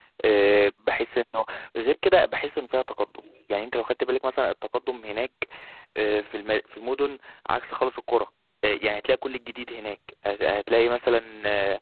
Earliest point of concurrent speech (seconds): none

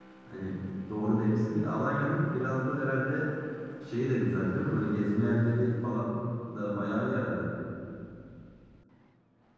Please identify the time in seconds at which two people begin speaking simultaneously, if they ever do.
none

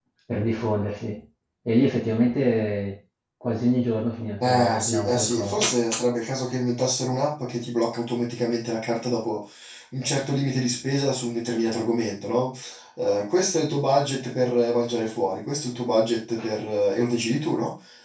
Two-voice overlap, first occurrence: 4.4 s

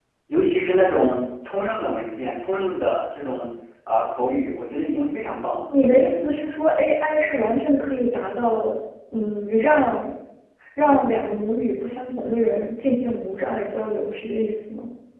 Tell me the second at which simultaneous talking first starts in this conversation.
none

